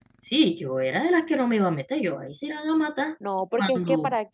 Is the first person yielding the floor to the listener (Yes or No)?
Yes